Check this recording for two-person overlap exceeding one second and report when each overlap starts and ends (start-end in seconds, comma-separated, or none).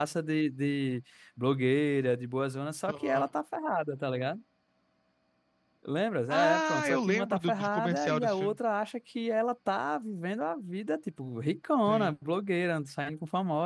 6.3-8.6